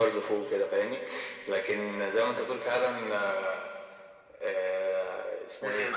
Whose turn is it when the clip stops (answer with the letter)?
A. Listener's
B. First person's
A